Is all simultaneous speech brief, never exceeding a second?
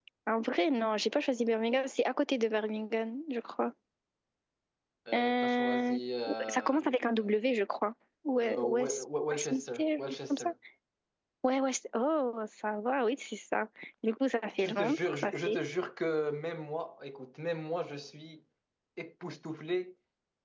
No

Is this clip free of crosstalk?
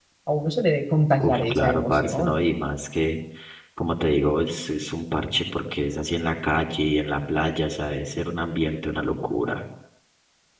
No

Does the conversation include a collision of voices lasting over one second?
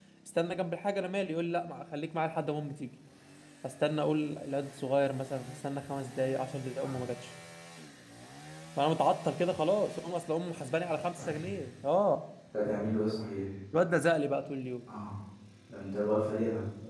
No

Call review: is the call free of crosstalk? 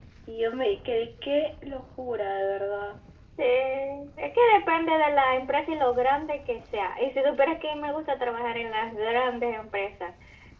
Yes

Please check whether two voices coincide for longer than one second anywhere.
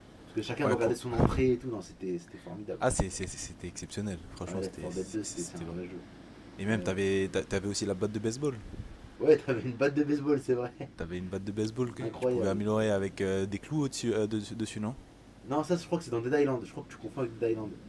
Yes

